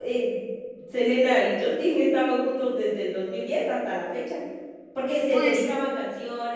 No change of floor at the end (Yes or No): Yes